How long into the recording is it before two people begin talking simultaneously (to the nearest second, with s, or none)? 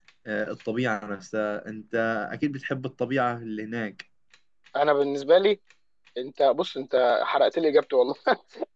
none